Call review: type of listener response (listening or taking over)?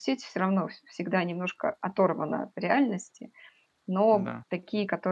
listening